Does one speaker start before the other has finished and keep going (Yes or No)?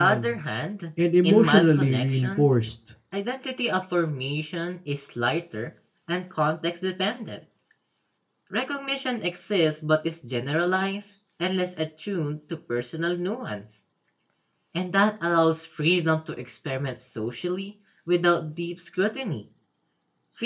Yes